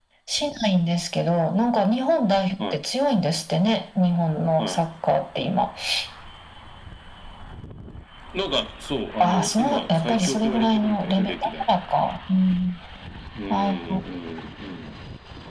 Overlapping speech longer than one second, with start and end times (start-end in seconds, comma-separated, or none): 9.2-11.6